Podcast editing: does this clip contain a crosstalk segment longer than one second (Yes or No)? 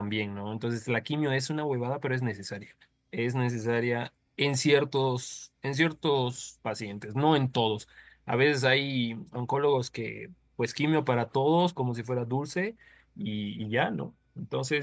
No